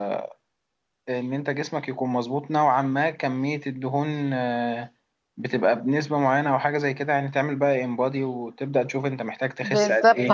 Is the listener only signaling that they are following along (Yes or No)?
No